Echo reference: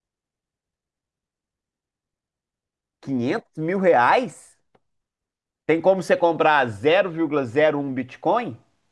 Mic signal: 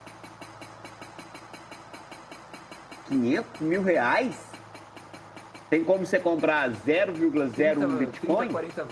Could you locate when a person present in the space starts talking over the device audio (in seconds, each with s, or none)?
7.5 s